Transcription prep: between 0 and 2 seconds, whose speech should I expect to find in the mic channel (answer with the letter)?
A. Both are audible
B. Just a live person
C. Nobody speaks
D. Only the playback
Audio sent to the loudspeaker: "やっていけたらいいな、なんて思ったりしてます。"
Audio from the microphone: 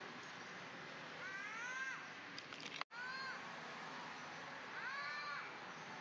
C